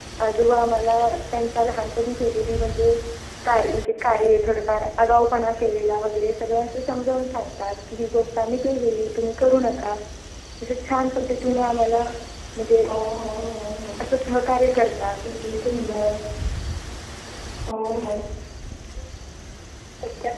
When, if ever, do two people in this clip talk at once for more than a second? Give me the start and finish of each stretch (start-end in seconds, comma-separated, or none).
none